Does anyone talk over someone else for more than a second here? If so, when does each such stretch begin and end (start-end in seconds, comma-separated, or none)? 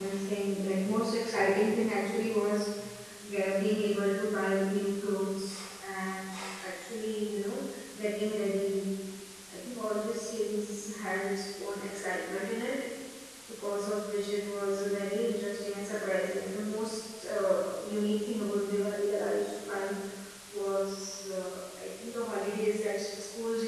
none